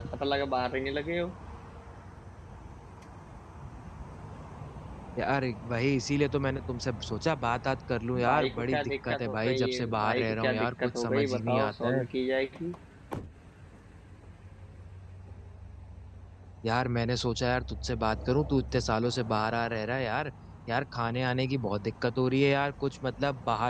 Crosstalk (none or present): present